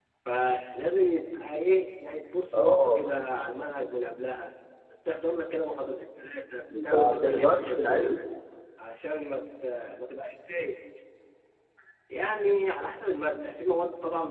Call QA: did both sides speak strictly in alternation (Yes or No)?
No